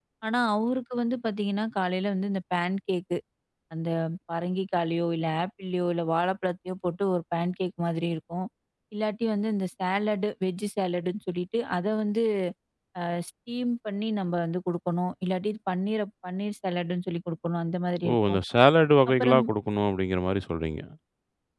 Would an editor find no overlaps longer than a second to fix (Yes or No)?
Yes